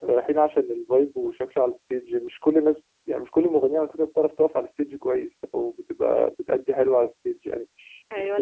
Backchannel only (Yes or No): No